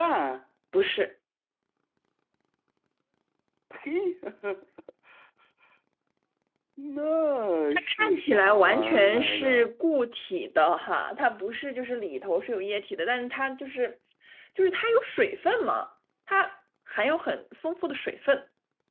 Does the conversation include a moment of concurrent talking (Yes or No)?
Yes